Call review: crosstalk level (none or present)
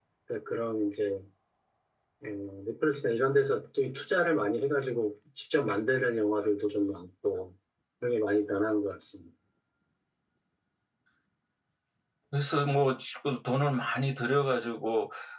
none